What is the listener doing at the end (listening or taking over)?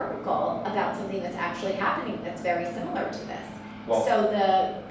listening